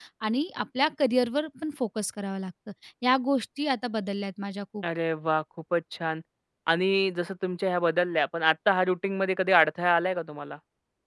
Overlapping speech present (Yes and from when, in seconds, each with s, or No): No